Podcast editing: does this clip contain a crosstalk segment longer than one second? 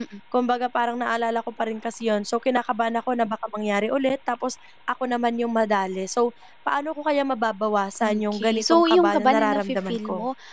Yes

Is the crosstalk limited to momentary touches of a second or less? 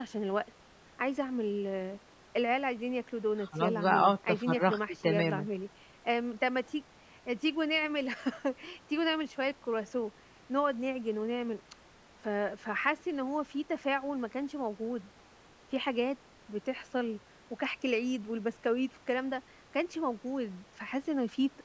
No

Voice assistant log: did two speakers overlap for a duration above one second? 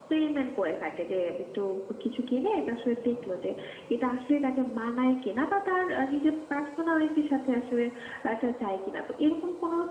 No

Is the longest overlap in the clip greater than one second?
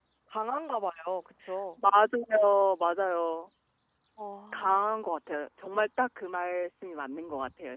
No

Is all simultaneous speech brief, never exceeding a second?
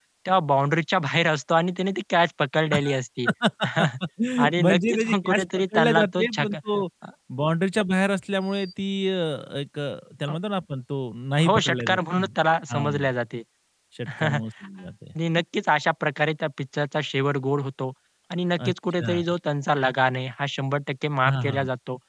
No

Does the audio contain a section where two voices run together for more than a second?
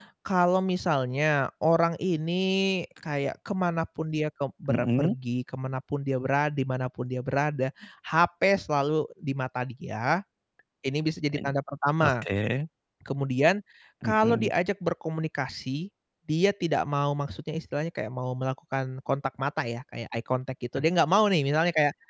No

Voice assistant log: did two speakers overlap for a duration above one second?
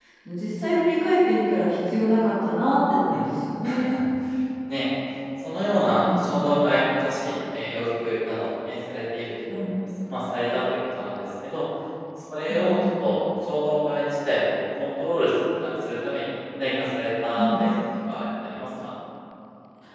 No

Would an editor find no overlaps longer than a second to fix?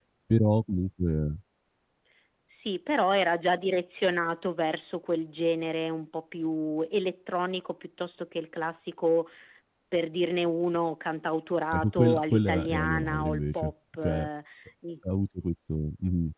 No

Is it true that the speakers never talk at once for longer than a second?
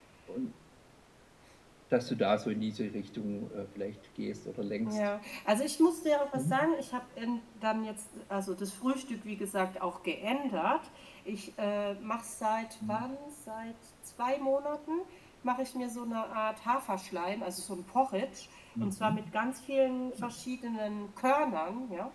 Yes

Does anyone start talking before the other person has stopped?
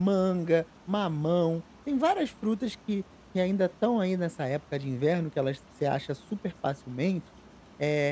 No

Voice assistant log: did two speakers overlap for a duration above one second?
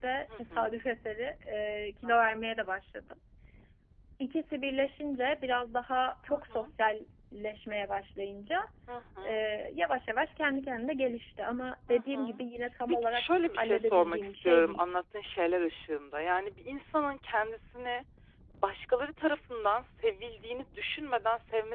Yes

